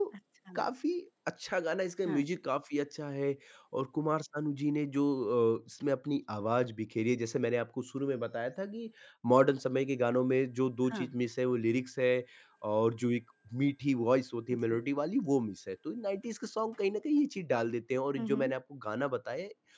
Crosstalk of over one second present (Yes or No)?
No